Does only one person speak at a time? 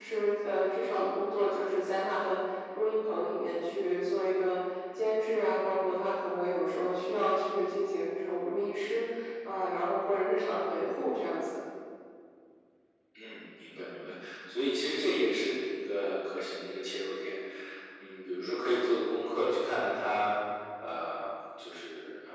Yes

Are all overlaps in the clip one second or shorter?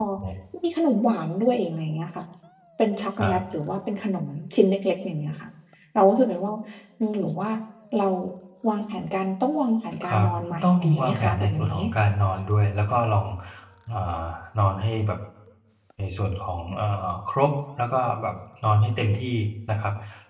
No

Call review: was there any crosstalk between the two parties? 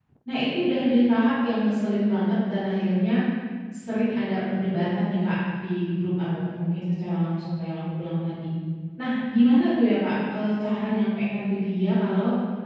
No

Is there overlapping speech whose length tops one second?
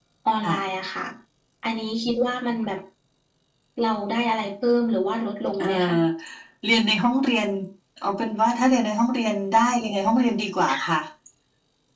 No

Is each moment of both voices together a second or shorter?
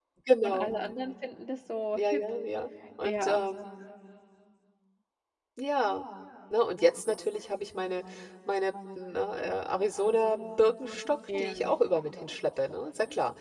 Yes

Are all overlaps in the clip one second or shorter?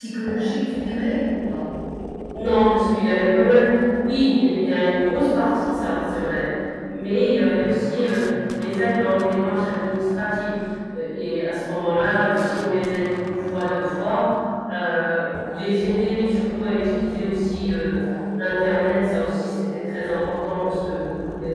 Yes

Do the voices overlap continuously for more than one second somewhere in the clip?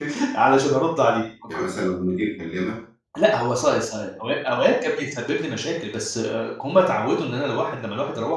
No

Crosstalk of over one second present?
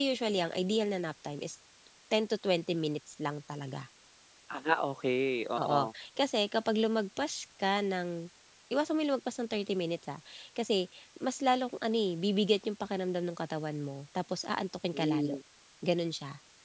No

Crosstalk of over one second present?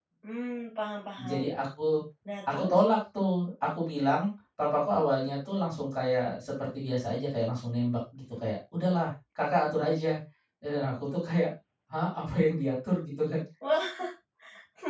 No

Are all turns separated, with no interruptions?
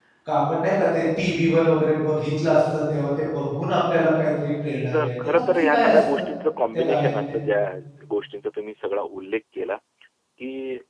No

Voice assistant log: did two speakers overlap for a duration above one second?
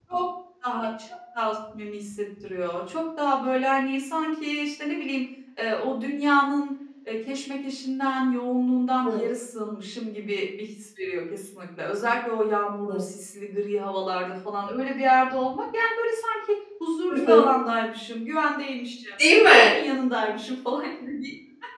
No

